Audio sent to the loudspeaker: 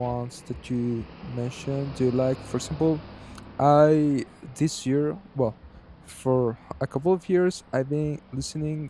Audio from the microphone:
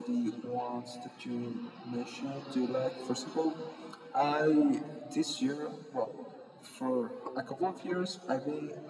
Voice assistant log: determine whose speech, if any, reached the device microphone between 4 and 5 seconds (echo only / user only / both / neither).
echo only